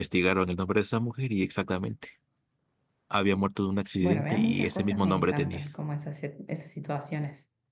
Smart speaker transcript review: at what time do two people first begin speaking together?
4.0 s

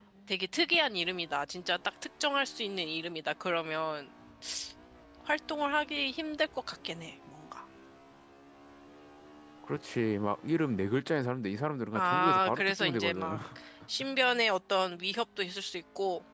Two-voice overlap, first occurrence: 11.9 s

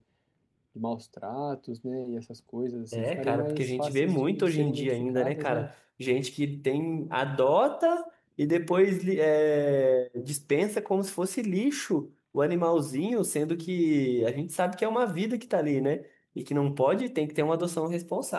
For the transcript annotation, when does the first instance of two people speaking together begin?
2.9 s

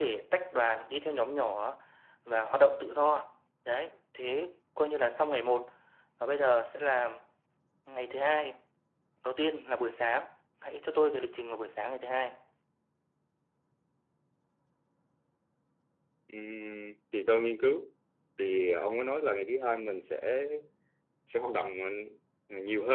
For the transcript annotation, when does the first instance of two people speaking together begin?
none

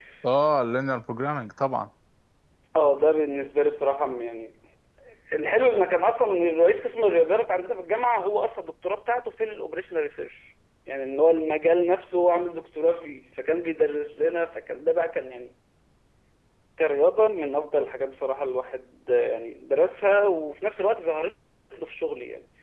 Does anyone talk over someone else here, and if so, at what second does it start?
none

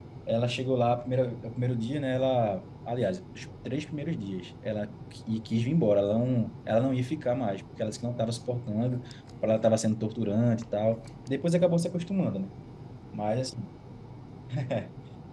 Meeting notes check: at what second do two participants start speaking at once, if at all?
none

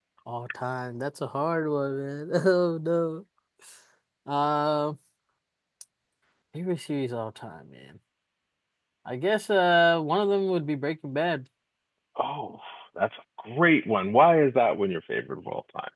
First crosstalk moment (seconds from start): none

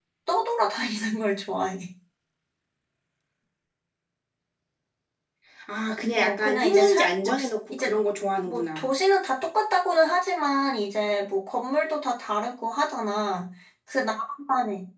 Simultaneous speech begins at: 6.2 s

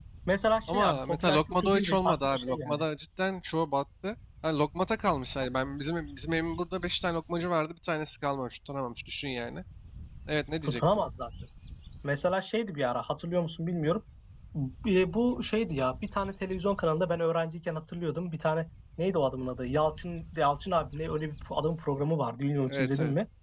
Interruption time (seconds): 0.7 s

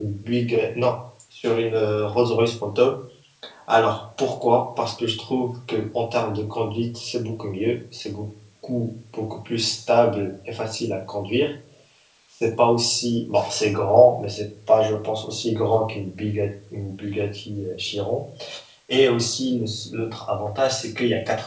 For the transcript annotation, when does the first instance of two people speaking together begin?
none

